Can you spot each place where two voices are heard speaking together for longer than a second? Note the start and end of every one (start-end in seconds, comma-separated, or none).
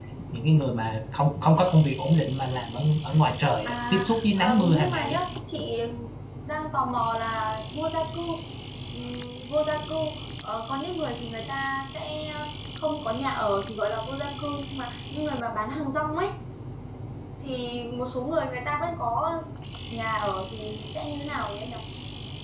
3.6-5.2